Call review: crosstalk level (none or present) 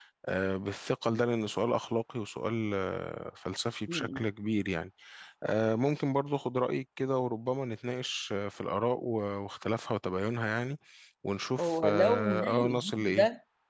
present